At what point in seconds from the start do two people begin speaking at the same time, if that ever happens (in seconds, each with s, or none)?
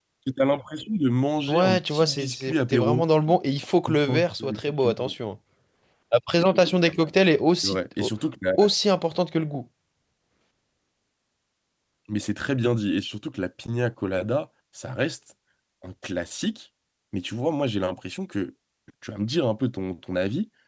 1.5 s